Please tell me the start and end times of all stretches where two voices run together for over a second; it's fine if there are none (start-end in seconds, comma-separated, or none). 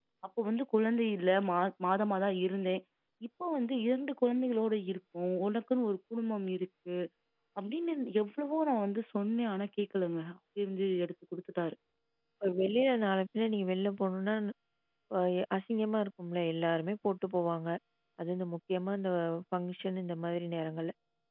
none